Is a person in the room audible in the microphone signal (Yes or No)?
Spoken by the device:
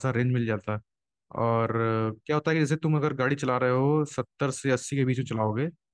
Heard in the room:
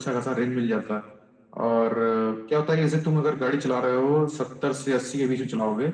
No